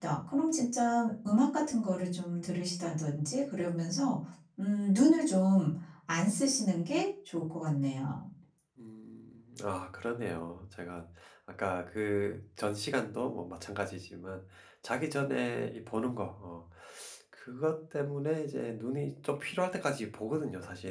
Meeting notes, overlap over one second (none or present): none